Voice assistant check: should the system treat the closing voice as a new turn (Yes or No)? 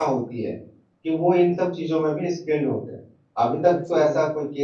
No